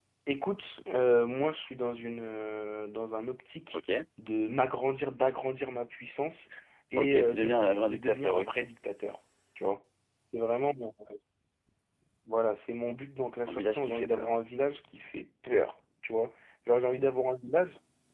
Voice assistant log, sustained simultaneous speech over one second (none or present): present